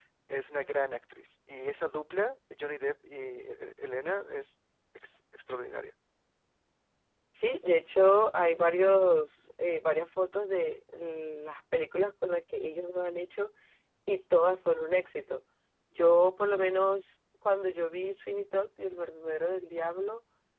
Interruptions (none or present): none